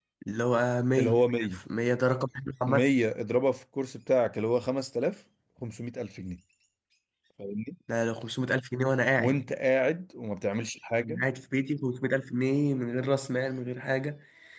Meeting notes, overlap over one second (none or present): none